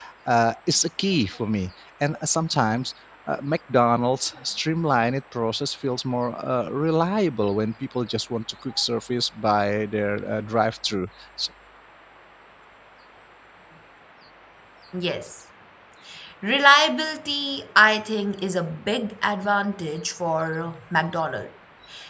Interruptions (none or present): none